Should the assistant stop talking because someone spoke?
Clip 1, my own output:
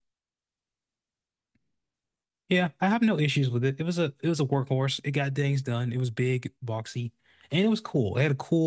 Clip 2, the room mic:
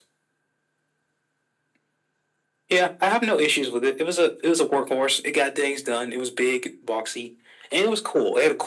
No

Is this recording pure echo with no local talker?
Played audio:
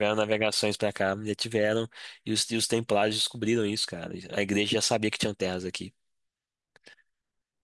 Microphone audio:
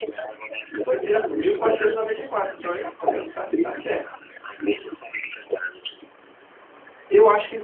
No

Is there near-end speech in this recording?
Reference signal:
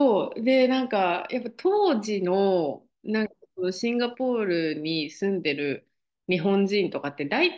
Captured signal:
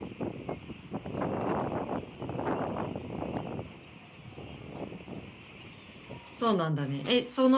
Yes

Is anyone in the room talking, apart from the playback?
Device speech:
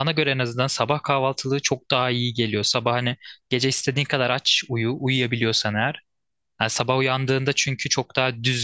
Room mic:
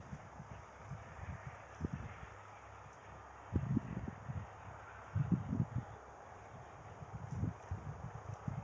No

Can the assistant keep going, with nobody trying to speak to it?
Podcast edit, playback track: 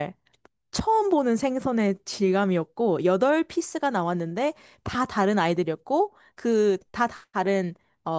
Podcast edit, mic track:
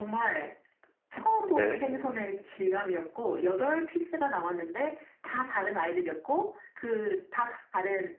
No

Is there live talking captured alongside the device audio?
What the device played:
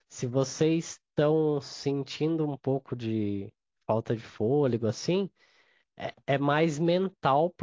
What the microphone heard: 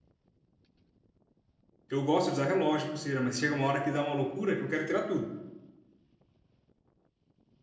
Yes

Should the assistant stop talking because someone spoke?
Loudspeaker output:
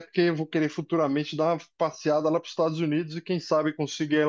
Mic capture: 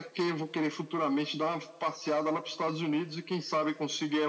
No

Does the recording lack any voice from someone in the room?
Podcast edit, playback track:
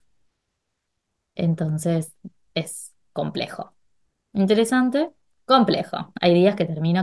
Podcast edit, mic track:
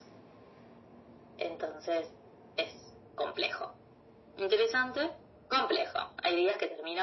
Yes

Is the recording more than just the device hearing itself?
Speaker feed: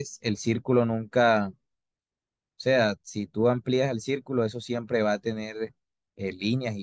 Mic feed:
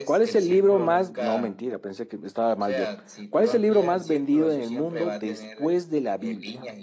Yes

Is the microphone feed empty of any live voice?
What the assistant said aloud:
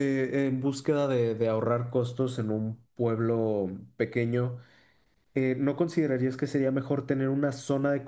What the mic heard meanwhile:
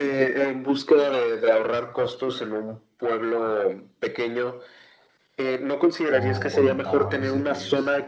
No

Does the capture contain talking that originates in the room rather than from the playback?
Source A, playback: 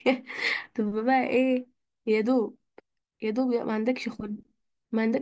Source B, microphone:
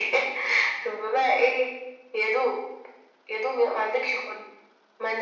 No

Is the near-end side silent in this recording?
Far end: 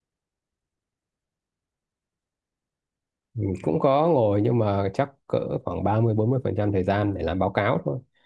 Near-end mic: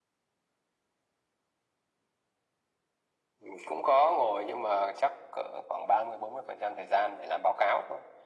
Yes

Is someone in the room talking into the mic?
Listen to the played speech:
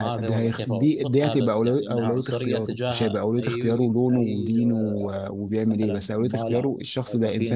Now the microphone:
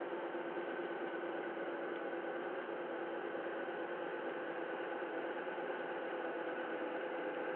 No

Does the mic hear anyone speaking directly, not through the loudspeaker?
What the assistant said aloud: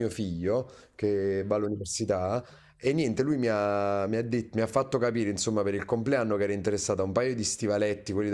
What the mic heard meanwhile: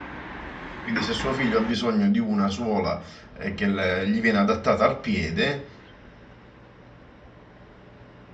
Yes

